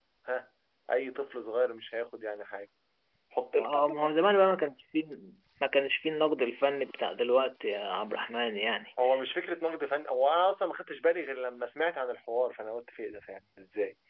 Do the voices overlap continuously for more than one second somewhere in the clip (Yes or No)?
No